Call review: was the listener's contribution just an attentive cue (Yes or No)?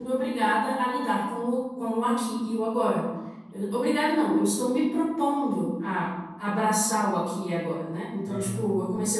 Yes